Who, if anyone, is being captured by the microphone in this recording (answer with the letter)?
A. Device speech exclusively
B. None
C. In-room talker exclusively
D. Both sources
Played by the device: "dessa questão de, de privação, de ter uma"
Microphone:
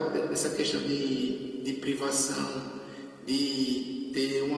A